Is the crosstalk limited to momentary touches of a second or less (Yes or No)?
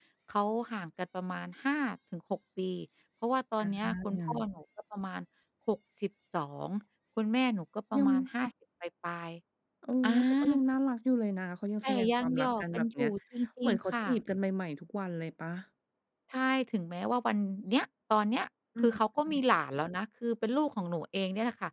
No